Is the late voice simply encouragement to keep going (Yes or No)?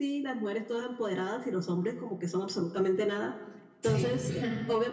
Yes